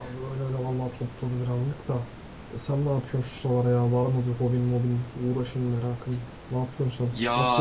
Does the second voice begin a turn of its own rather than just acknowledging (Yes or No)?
Yes